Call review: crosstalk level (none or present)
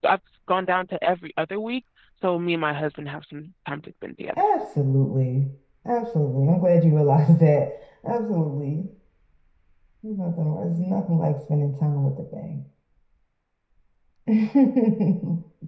none